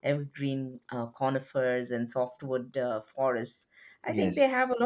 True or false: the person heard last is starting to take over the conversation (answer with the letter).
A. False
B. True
A